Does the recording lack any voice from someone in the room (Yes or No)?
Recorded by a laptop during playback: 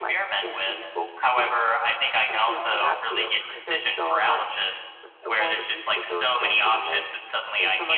No